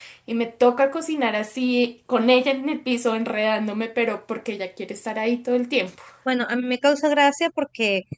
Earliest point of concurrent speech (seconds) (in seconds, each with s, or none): none